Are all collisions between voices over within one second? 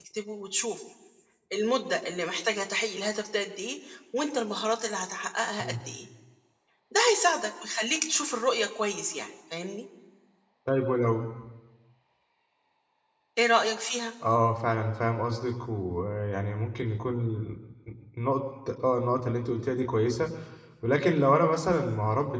Yes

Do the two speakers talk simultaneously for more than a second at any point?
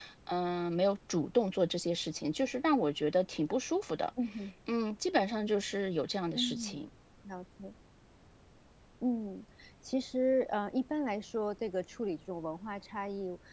No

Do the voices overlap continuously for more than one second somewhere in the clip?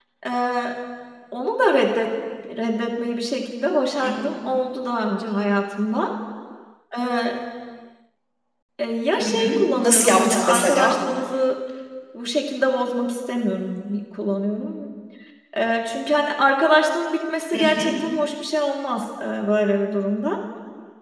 Yes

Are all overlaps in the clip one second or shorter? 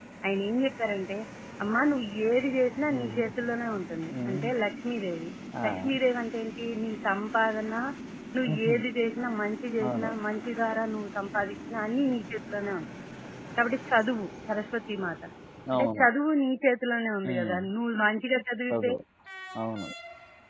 Yes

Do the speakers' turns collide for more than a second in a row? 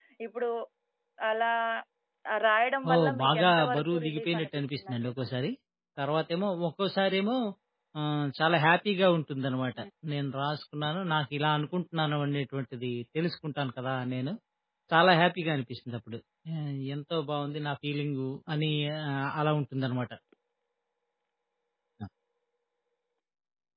Yes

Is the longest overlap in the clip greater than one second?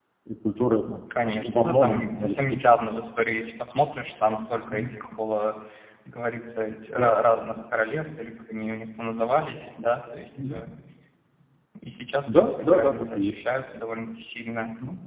Yes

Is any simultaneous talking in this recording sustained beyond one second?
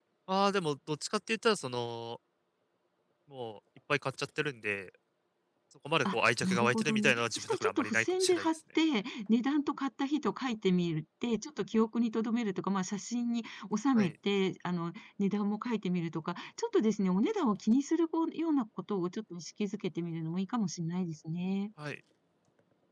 Yes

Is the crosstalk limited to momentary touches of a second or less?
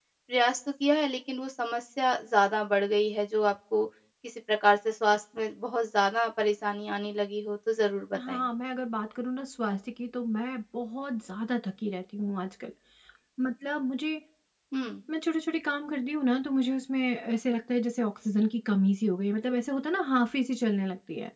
Yes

